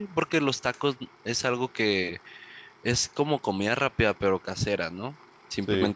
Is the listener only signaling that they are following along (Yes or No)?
Yes